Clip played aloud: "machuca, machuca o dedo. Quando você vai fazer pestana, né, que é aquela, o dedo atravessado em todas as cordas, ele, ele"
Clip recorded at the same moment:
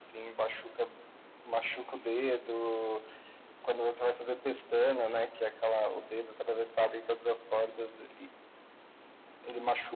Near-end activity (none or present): none